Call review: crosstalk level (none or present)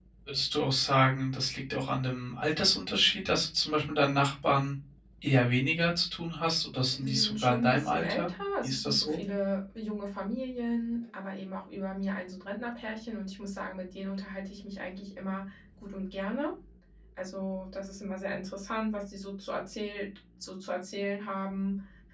present